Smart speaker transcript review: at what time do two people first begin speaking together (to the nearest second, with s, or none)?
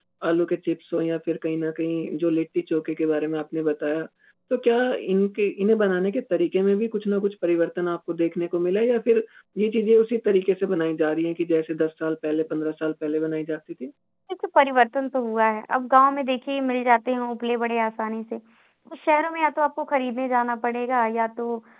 none